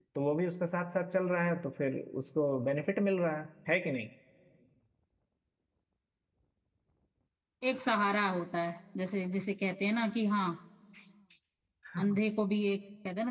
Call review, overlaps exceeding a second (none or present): none